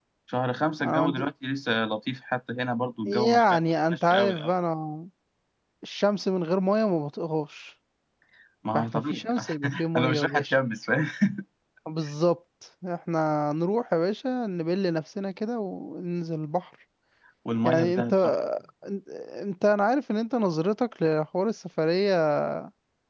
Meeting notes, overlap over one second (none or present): present